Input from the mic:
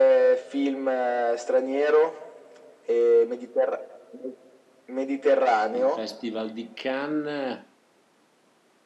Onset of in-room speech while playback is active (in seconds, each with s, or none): 5.7 s